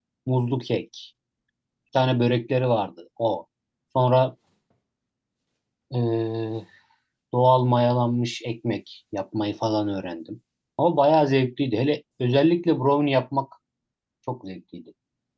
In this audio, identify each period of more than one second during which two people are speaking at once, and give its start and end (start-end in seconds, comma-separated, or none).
none